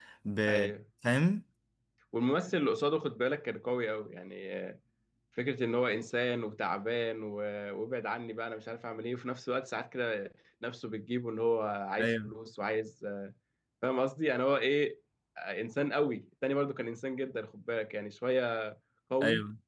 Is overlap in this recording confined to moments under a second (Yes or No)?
Yes